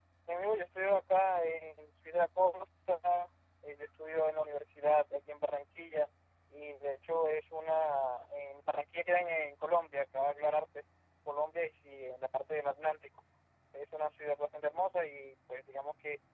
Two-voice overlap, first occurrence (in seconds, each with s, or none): none